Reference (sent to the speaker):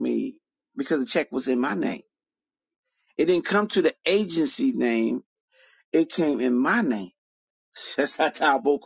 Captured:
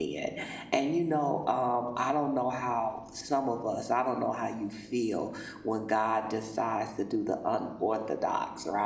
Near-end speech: present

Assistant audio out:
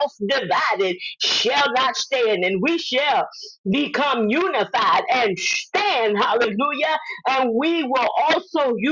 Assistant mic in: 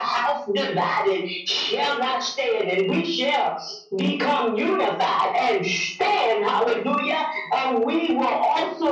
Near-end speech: none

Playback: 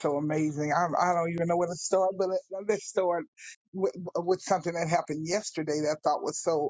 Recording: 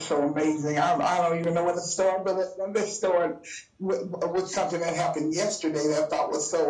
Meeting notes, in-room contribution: none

